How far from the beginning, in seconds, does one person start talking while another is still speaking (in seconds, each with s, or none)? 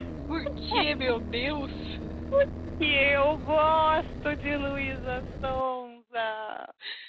none